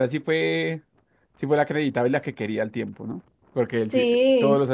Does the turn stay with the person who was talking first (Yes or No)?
Yes